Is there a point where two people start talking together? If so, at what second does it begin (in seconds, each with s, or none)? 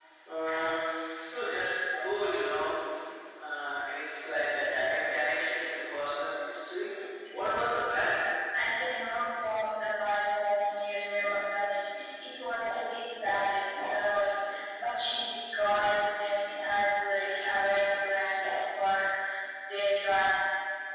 none